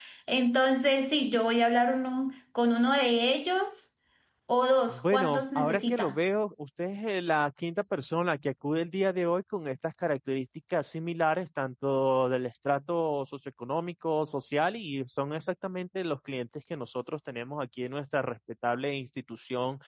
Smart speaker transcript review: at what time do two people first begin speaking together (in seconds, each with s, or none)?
4.9 s